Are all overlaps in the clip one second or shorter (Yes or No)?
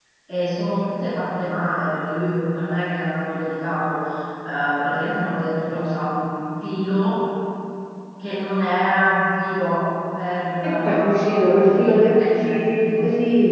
No